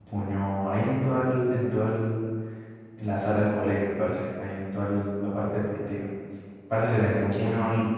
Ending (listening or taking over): listening